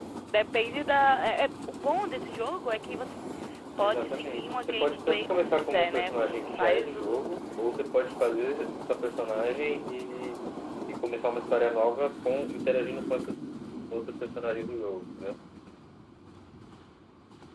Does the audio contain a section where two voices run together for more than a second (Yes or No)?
Yes